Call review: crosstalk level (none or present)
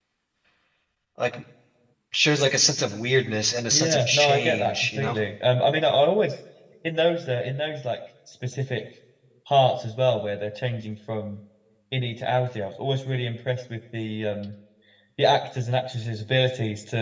present